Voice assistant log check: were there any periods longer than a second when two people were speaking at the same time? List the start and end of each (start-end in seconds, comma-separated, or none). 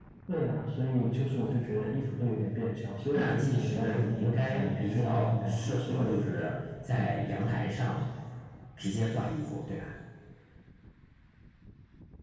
3.1-6.2